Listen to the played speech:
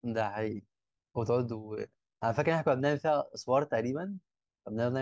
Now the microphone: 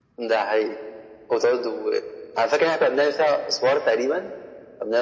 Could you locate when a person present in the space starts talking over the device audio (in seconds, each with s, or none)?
none